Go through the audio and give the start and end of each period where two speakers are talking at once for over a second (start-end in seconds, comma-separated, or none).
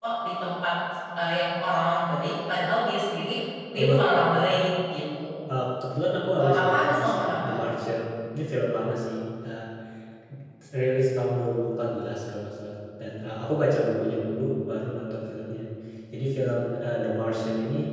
6.4-7.6